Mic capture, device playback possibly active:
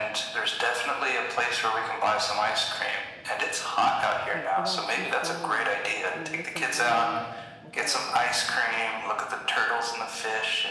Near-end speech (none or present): present